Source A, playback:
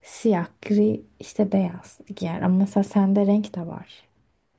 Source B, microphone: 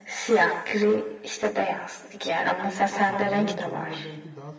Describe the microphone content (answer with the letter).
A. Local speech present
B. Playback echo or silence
A